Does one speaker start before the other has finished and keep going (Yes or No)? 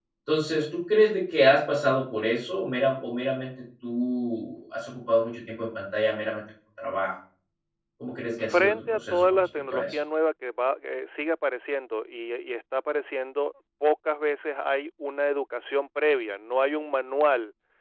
Yes